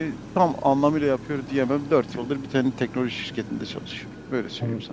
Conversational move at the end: taking over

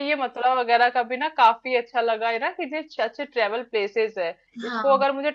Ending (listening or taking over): listening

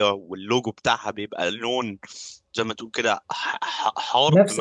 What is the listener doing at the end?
taking over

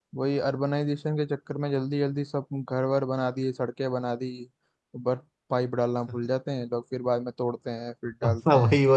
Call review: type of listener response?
taking over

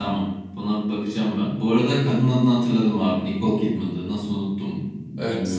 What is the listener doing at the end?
listening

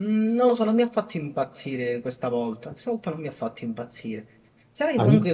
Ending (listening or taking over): listening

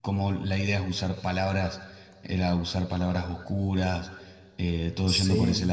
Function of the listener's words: listening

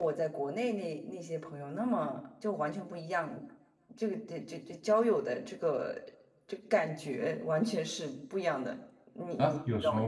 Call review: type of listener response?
taking over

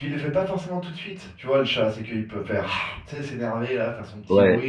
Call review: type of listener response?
taking over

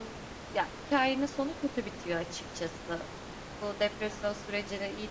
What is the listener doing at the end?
listening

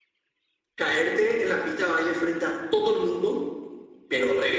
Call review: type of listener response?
listening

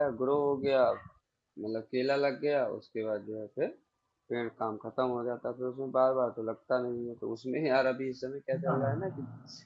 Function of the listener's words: listening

